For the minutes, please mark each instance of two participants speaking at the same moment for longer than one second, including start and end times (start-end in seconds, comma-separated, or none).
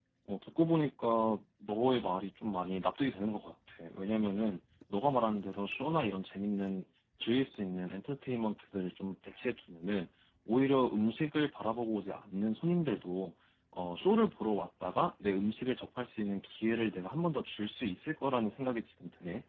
none